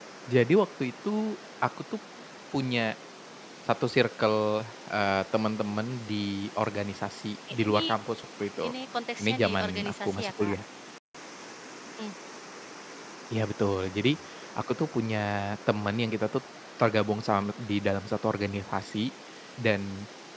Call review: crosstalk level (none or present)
present